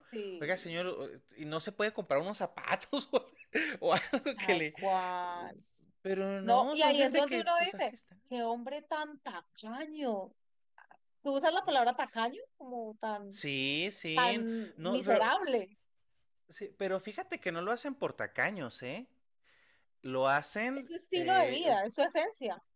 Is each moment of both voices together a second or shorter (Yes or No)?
No